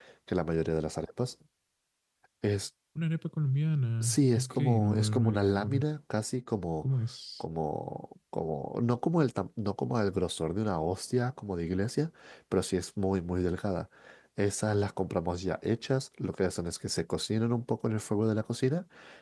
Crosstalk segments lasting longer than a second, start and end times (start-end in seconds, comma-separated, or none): 4.0-5.8